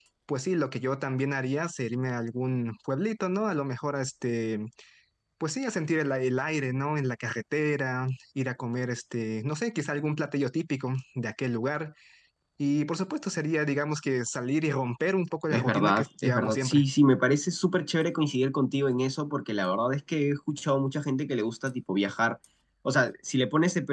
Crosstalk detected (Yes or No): Yes